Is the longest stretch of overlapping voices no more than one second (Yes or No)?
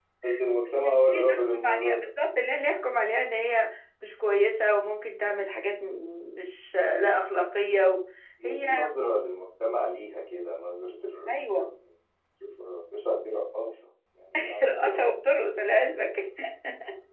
No